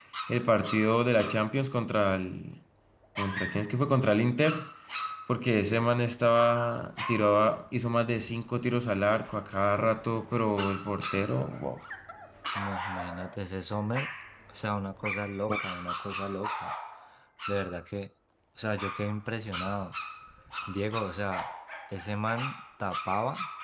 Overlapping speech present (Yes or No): No